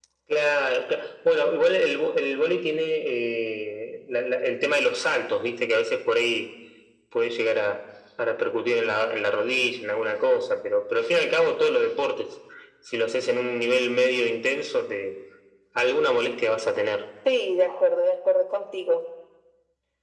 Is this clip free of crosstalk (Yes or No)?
Yes